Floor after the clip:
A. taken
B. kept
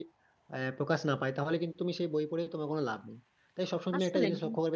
B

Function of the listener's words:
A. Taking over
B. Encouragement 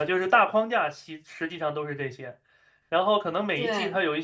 B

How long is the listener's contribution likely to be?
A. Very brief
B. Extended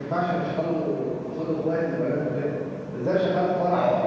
A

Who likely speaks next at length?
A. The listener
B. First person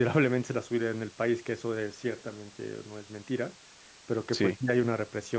B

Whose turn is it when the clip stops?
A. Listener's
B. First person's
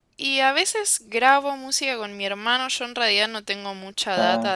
B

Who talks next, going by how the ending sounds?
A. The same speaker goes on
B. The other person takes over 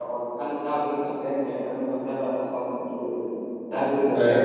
B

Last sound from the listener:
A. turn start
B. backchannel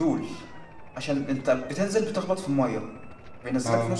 B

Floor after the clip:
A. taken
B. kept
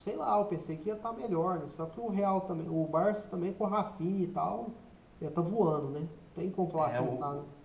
A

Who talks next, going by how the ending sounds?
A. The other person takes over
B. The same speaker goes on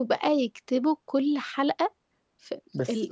A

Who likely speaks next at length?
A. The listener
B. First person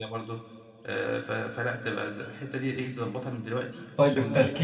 A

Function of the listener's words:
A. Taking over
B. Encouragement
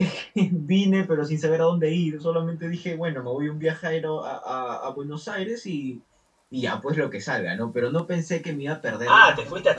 A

